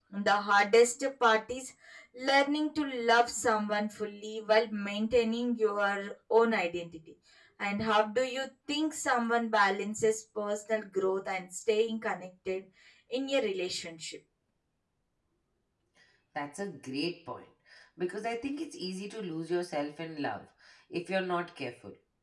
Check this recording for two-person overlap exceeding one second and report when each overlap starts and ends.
none

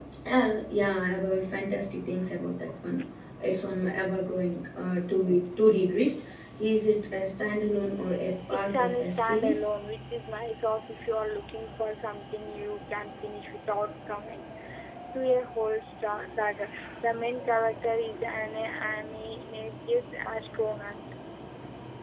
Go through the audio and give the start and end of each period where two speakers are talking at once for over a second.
8.5-9.7

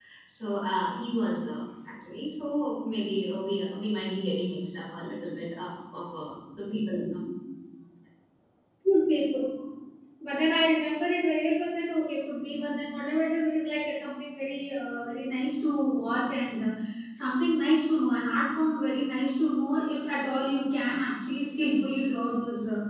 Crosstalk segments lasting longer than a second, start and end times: none

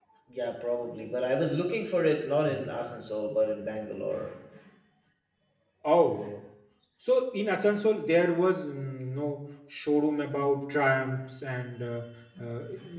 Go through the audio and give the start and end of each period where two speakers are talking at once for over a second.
none

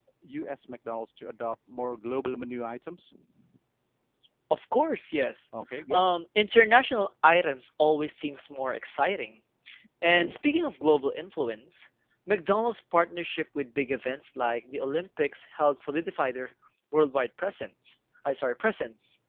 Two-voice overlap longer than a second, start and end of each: none

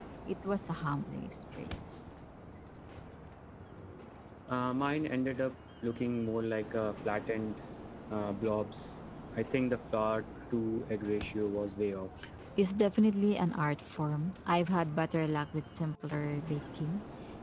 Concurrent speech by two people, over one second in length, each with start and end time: none

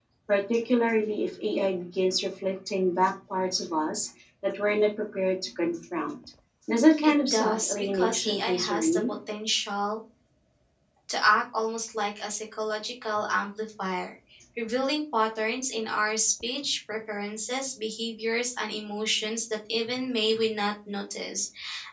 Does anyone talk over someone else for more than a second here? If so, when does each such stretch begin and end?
7.0-9.0

